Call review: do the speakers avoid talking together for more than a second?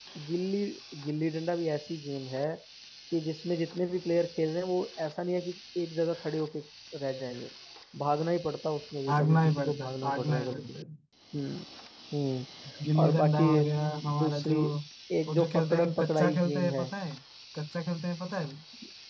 No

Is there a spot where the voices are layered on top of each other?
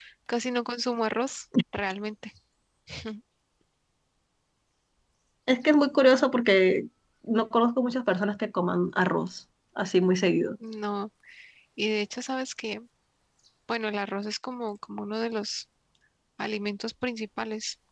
No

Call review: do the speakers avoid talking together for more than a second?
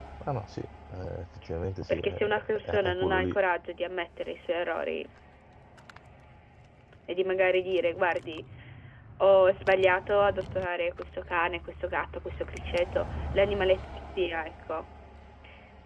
No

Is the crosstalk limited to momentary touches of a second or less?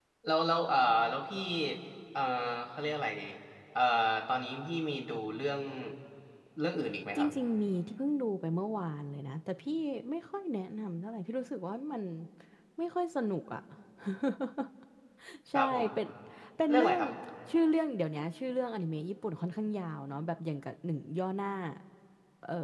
Yes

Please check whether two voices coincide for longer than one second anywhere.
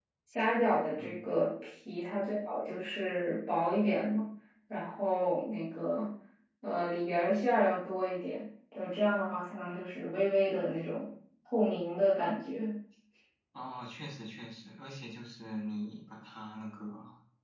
No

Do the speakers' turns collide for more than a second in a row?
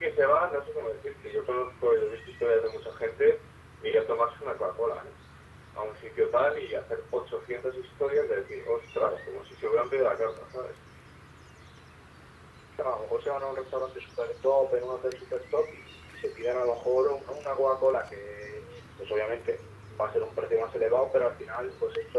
No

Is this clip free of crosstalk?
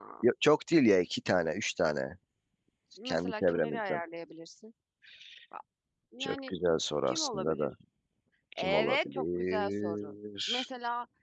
No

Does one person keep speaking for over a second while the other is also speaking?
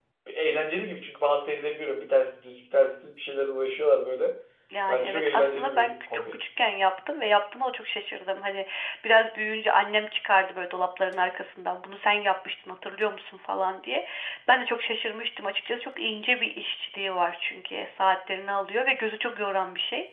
Yes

